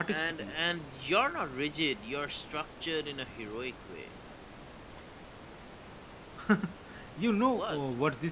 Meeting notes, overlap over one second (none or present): none